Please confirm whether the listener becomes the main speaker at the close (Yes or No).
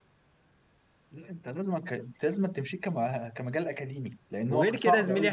Yes